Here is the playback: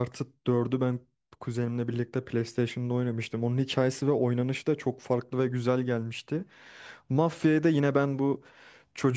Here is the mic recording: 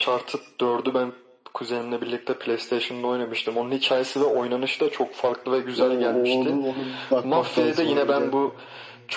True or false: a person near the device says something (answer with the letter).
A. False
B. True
B